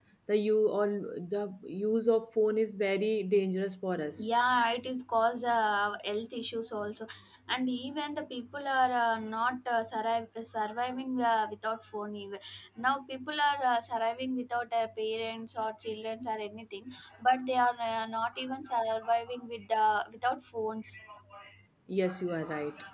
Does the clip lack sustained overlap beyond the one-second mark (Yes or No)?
Yes